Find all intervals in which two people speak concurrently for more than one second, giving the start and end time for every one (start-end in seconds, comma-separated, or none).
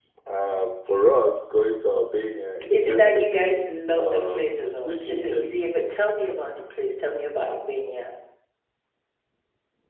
2.7-5.5